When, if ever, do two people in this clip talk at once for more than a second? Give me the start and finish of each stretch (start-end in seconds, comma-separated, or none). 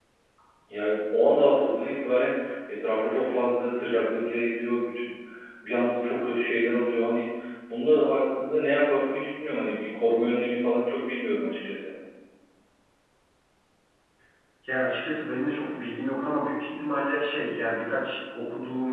none